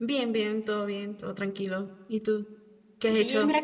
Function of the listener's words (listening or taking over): taking over